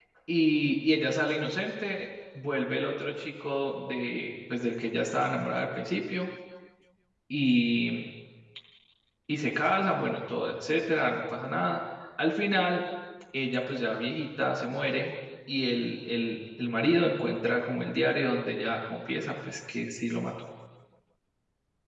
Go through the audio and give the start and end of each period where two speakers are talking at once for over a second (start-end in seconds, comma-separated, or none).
none